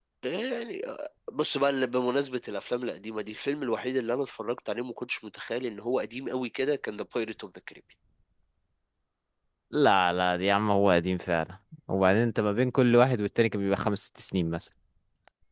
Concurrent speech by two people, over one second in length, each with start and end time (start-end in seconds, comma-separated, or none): none